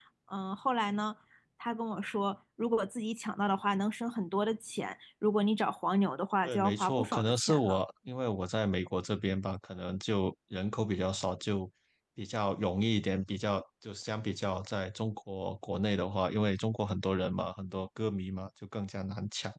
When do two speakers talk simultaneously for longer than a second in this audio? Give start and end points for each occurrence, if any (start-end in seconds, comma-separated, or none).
6.4-7.8